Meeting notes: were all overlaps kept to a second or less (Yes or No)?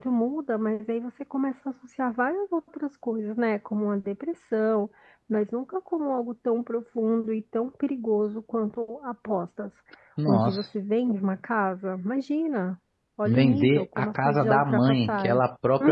No